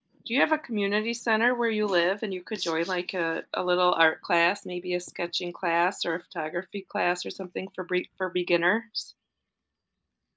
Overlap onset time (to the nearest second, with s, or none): none